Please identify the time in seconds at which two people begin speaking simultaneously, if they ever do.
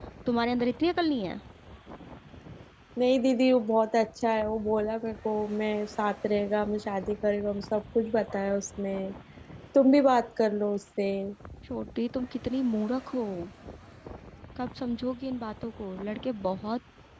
none

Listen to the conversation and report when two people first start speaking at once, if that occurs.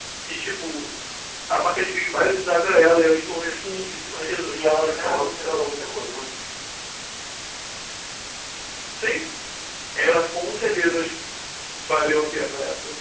3.6 s

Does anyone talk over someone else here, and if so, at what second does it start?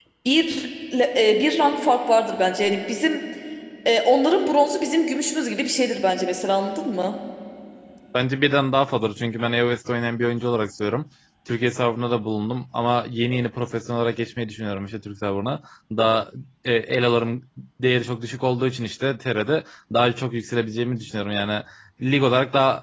none

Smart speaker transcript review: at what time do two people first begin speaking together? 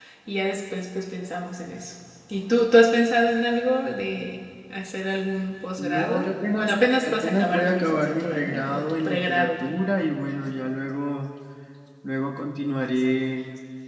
5.8 s

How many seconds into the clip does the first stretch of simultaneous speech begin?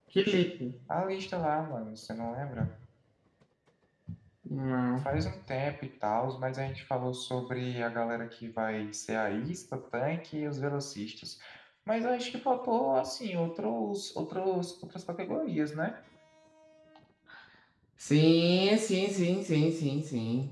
none

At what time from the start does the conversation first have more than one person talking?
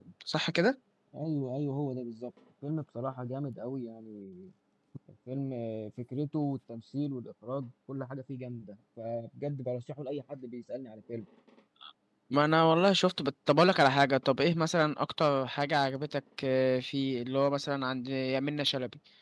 none

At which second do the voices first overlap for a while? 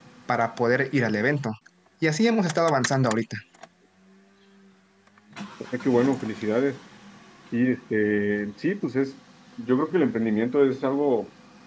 none

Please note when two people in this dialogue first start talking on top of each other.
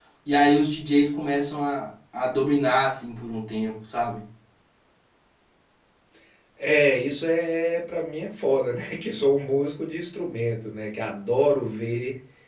none

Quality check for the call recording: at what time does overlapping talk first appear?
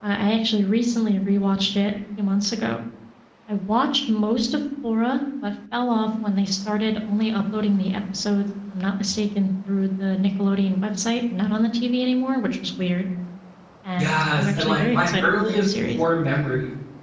14.0 s

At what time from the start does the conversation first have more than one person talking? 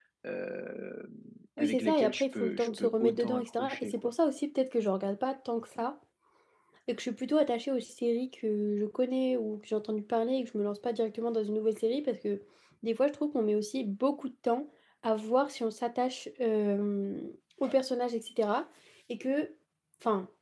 1.6 s

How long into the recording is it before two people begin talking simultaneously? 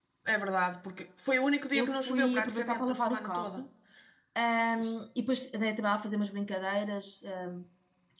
1.8 s

